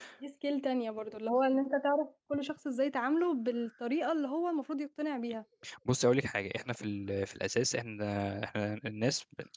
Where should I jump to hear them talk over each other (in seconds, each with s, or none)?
none